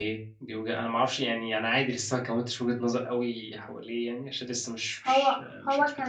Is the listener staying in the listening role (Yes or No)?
No